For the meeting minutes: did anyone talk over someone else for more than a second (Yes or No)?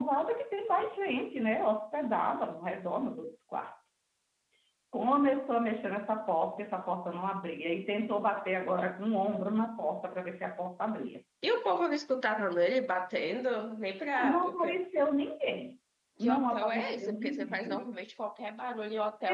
Yes